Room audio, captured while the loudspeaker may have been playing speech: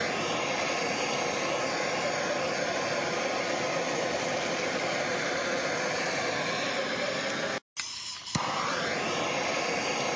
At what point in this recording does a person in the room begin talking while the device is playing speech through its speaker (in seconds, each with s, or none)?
none